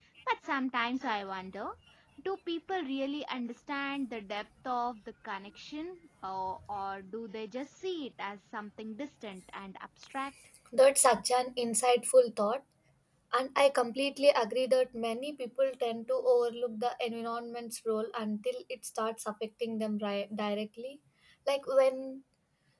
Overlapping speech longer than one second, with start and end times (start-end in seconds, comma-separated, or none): none